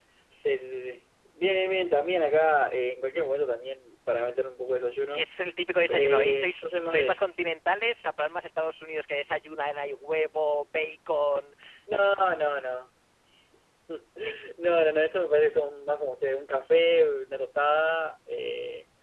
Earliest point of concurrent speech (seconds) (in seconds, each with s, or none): 5.9 s